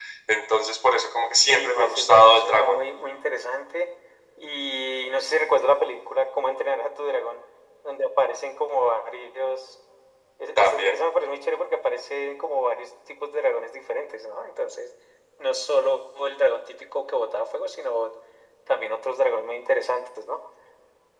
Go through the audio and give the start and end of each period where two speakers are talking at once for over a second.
1.5-2.8

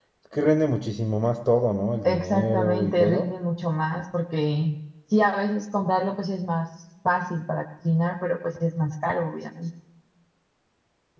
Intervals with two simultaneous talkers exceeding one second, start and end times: 2.0-3.3

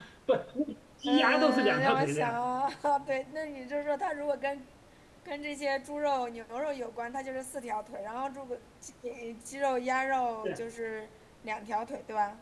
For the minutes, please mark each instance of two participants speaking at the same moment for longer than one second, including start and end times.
1.1-2.3

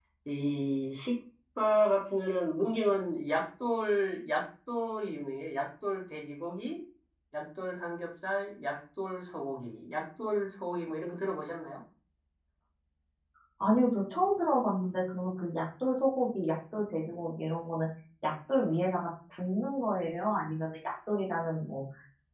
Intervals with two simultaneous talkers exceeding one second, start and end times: none

